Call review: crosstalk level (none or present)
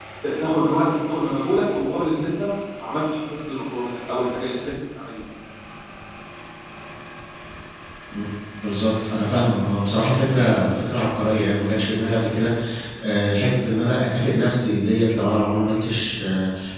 none